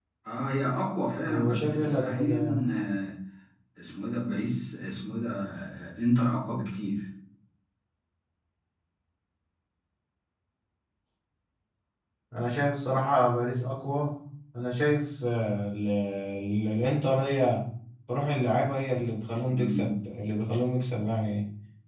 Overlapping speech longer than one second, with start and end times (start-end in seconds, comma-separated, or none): 1.3-2.6